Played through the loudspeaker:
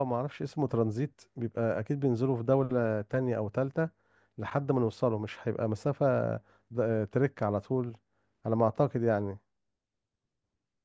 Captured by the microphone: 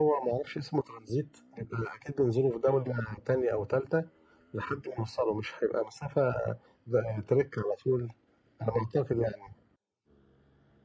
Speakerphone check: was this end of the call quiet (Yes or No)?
Yes